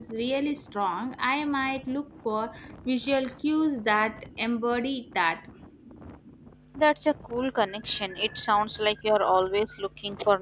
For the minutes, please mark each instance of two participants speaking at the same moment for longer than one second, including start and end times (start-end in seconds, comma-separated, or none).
none